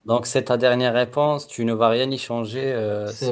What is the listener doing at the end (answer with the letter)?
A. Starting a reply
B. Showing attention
A